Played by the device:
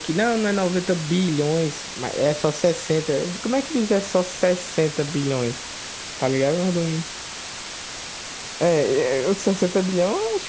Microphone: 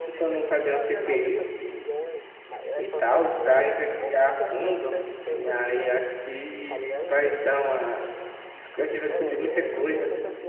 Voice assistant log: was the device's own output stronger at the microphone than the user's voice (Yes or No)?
No